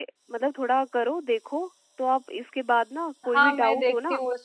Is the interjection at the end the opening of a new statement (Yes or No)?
Yes